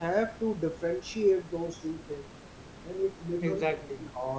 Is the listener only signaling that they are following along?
Yes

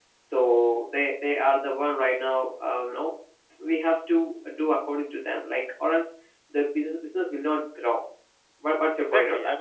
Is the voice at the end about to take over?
Yes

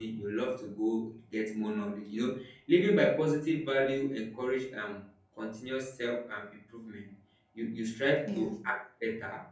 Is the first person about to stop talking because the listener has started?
No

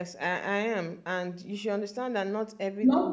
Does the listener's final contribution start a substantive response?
No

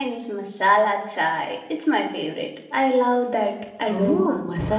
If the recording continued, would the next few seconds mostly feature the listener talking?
Yes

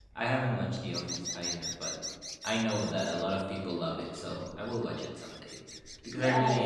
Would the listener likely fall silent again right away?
No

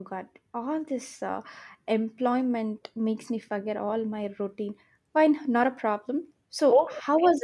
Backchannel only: No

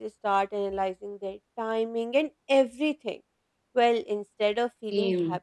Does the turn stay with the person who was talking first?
Yes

